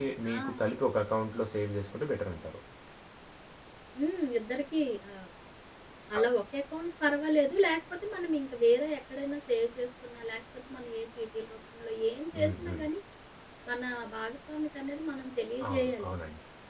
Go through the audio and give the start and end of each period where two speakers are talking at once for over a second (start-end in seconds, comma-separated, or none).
none